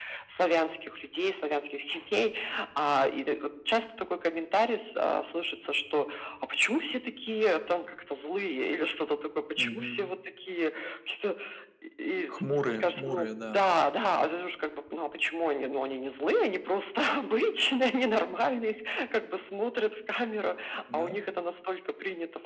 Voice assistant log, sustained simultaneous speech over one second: present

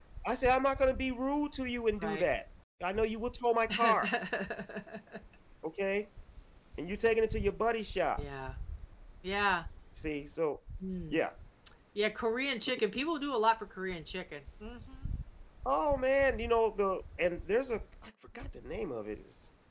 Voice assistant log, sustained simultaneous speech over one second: none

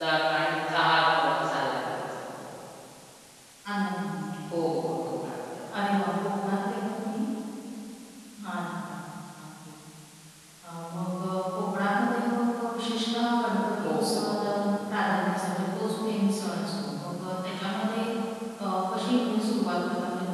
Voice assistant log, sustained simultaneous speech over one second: none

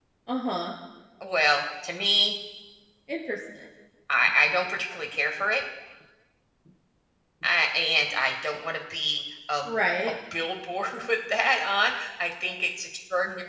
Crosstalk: none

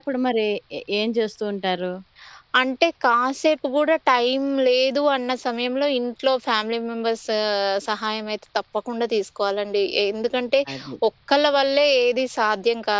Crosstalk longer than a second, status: none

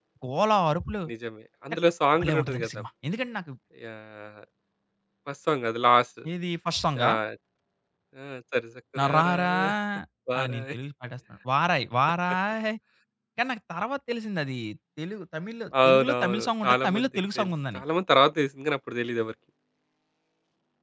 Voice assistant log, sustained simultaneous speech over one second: present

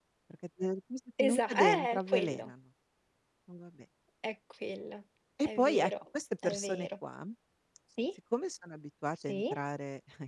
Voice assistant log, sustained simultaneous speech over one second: present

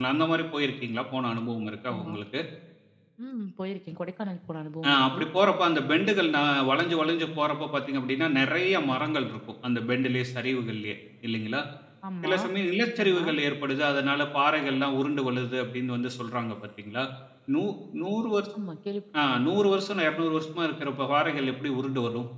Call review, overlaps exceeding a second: none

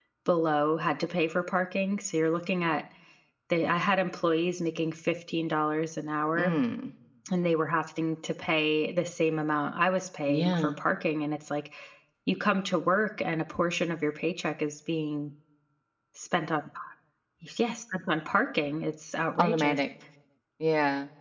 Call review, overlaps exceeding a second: none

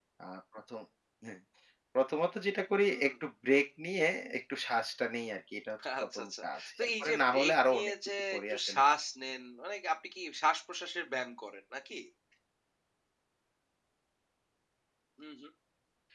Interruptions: present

